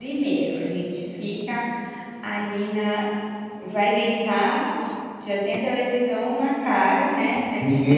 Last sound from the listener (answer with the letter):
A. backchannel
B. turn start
B